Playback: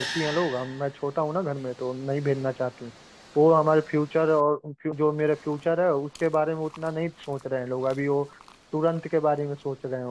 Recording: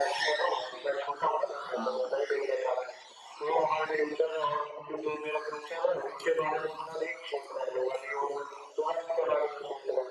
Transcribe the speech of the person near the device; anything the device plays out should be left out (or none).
हाँ